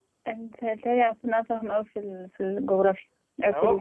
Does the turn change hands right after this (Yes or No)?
Yes